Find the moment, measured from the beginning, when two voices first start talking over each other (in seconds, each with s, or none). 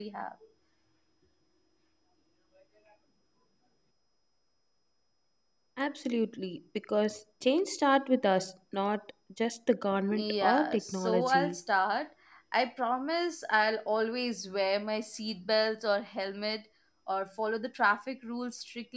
10.1 s